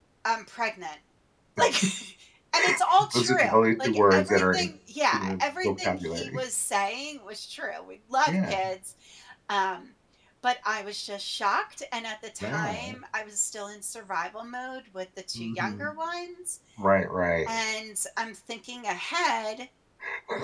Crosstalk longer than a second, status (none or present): present